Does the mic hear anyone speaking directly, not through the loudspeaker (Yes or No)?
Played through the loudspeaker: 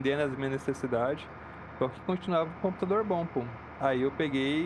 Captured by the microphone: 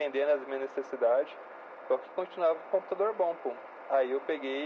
No